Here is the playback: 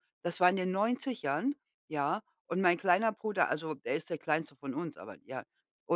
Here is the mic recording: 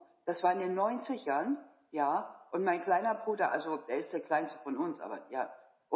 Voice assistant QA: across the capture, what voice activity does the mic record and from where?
echo only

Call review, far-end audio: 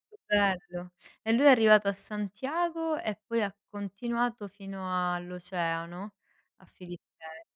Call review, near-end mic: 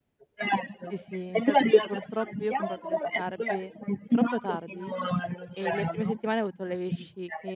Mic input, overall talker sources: both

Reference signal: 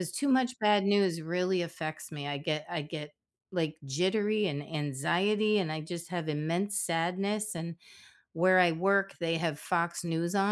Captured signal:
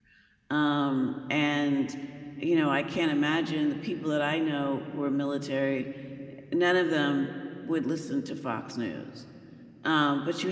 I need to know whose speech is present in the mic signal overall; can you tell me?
user only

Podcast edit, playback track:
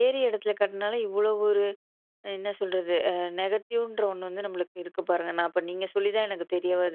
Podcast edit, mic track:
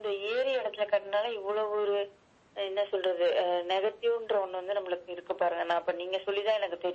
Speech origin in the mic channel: echo only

